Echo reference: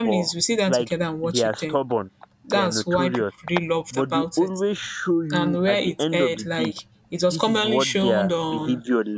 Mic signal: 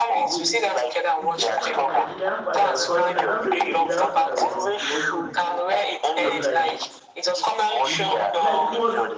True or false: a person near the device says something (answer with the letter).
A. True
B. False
A